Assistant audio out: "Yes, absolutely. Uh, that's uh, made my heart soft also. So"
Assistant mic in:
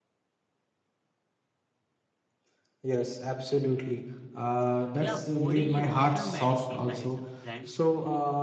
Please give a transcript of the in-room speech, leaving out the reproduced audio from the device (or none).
Yeah, food is emotional medicine, my t- friend.